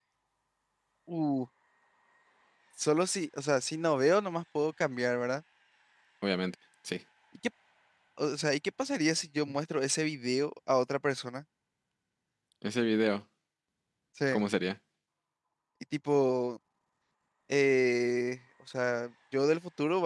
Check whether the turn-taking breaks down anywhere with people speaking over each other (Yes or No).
No